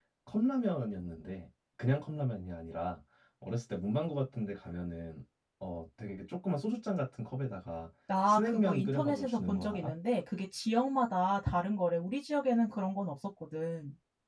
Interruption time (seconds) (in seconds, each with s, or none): 8.1 s